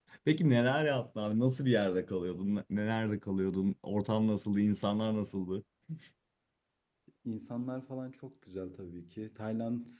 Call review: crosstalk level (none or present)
none